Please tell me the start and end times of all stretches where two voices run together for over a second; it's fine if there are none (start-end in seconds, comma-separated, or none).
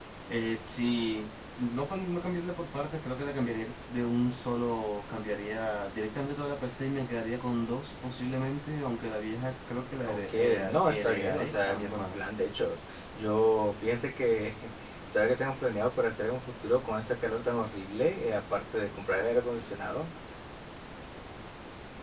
10.1-12.2